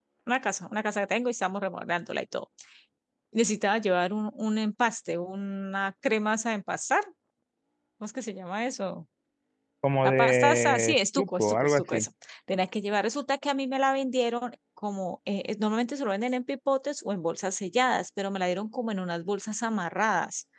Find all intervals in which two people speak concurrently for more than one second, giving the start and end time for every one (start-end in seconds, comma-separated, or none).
10.0-12.1